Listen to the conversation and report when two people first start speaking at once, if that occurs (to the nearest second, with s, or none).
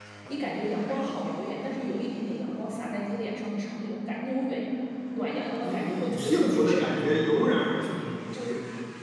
6 s